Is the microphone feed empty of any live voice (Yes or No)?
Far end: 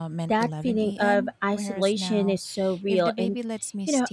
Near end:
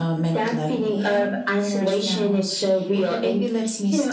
Yes